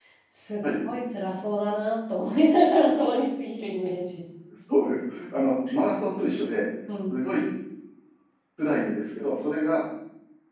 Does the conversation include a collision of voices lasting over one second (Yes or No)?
No